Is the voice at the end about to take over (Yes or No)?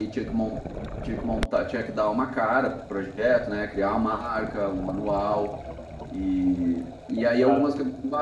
No